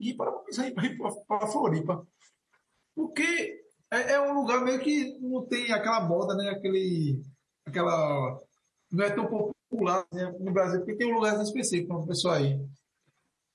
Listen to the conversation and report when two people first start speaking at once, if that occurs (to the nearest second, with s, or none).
none